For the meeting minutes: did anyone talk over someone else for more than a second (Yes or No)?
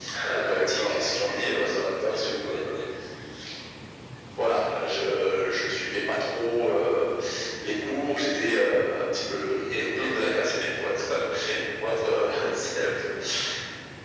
Yes